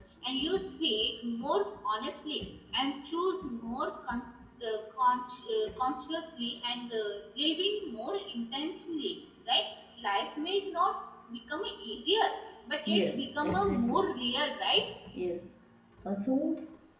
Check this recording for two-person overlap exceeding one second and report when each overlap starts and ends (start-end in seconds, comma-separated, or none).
12.9-14.1